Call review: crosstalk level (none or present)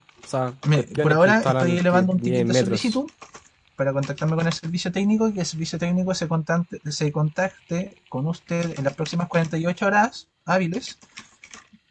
present